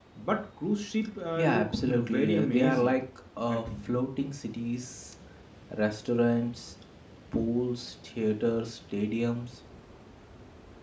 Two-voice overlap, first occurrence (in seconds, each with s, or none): 1.4 s